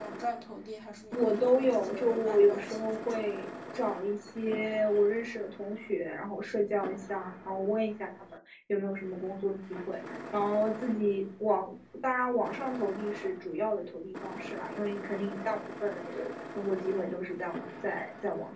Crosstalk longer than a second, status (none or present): present